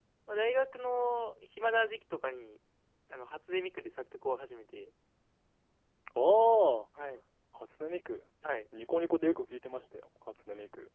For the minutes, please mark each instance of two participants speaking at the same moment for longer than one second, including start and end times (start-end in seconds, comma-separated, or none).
none